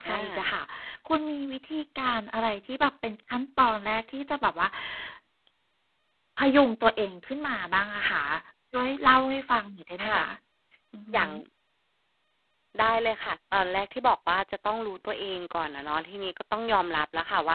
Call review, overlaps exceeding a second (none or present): none